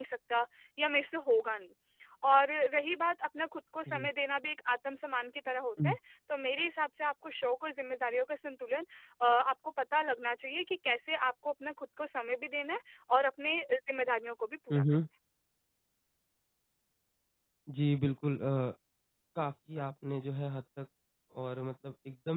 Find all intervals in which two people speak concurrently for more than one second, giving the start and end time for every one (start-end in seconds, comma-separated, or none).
none